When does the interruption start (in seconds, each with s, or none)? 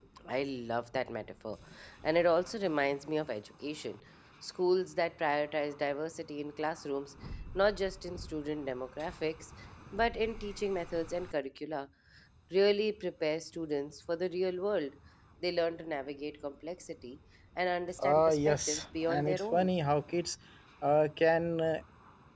18.0 s